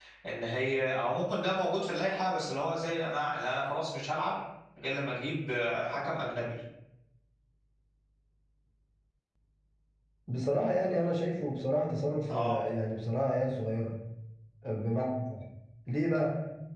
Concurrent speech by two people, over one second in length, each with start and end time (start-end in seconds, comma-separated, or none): none